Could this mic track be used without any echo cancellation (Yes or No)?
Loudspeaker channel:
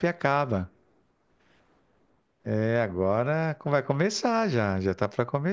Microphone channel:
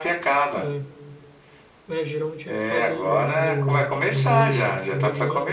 No